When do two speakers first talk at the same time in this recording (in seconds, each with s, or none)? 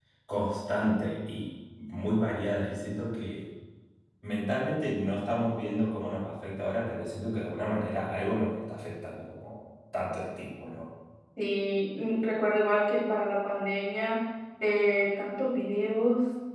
none